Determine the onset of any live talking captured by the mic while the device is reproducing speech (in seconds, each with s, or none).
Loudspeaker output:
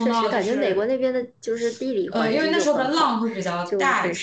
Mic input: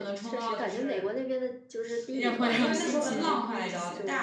2.1 s